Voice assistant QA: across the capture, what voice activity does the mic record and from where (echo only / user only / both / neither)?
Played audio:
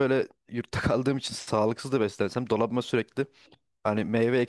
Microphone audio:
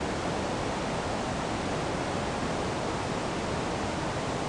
neither